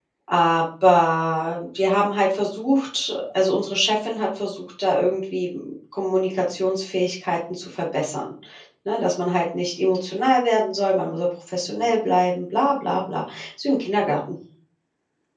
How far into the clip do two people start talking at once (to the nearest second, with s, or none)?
none